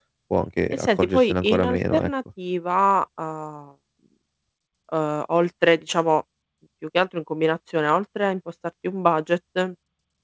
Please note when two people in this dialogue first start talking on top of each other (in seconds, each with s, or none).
0.7 s